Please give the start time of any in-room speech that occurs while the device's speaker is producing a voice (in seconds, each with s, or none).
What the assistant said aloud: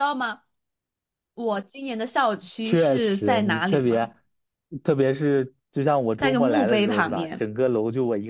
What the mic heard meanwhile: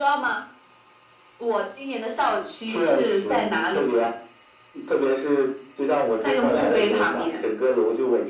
none